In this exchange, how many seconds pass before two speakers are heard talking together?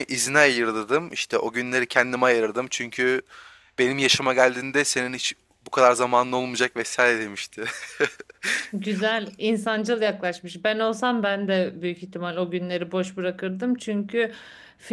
none

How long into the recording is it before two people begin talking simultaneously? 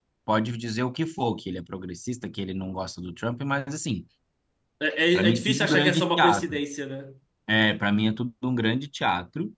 5.2 s

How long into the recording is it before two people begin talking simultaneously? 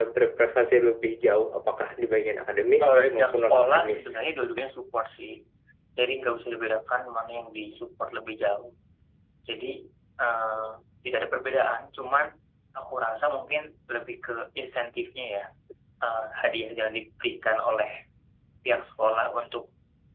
2.8 s

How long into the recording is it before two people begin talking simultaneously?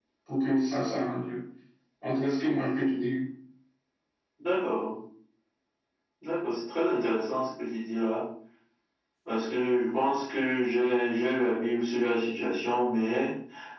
none

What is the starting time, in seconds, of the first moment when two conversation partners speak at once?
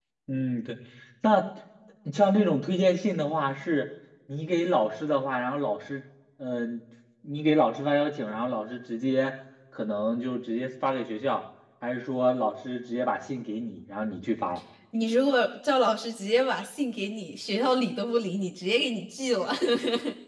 none

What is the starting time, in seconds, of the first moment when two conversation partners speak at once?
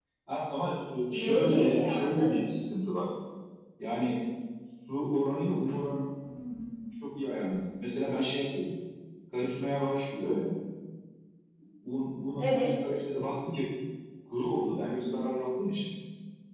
1.1 s

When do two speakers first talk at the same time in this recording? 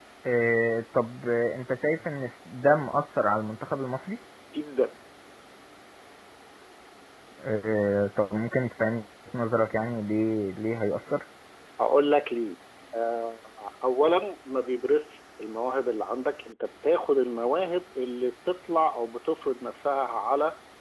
none

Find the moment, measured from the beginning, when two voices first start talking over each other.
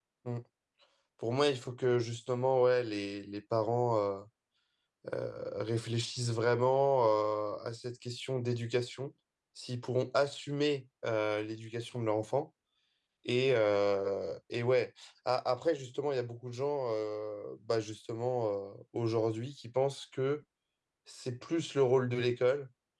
none

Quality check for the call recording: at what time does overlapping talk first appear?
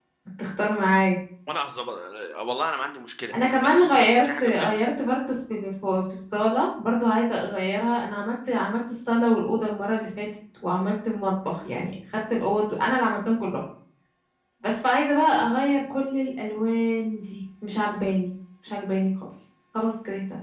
3.3 s

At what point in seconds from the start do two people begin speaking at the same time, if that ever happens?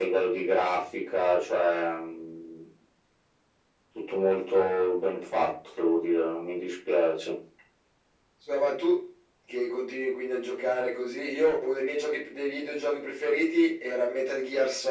none

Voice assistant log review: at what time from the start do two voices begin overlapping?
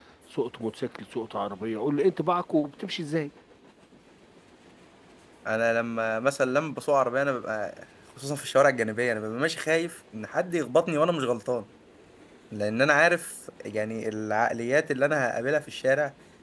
none

